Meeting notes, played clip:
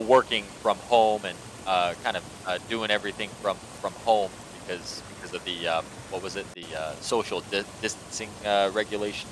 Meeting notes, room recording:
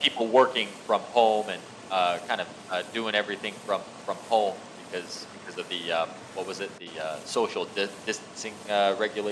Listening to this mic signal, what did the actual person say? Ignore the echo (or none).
none